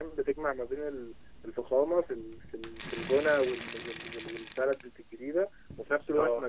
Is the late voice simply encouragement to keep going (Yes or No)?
Yes